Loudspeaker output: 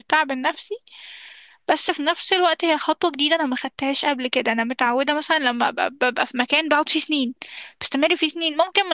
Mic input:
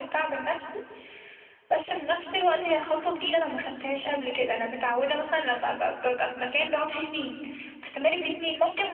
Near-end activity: none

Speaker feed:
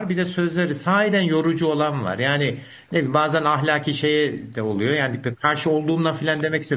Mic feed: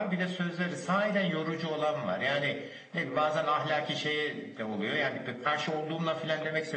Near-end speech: none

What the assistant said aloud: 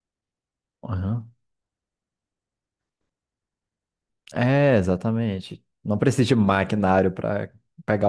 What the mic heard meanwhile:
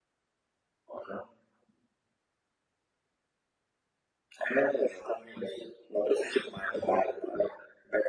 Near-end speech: none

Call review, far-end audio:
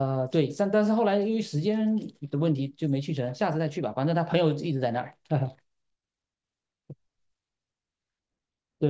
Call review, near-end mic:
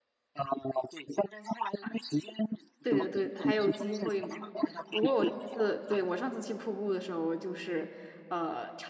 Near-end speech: present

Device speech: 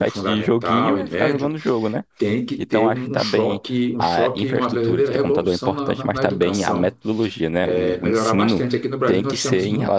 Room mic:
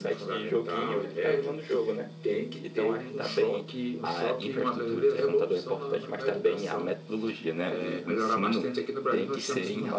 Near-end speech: none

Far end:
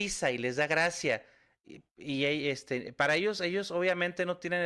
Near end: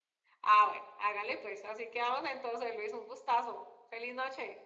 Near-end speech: present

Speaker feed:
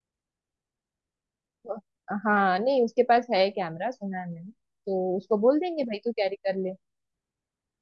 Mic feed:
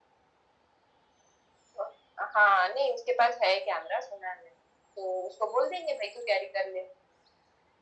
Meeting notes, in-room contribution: none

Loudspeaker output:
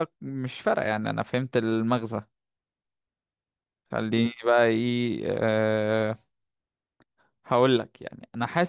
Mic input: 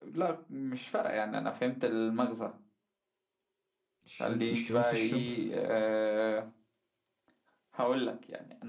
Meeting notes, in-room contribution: present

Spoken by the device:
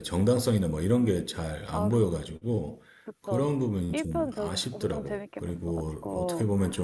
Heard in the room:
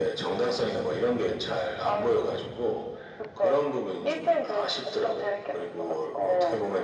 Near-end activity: none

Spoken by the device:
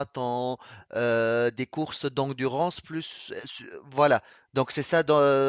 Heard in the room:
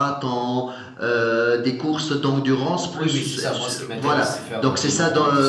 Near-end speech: present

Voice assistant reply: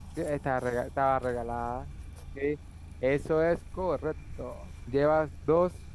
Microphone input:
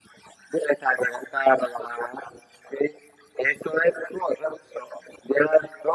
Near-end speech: none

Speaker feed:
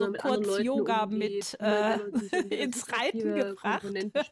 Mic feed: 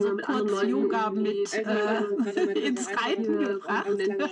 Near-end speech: present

